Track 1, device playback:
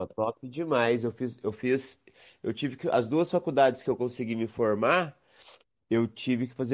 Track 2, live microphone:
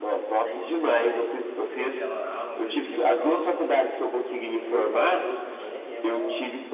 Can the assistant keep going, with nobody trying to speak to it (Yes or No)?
No